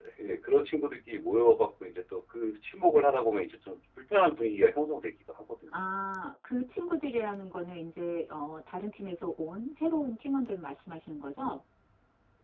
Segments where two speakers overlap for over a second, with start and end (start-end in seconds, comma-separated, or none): none